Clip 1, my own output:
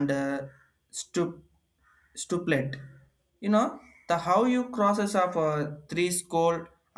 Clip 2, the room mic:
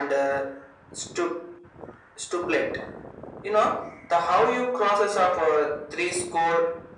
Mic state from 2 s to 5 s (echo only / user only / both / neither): echo only